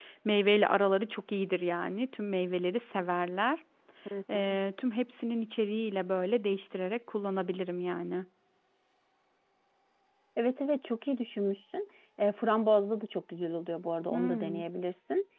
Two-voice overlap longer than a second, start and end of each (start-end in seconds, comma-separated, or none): none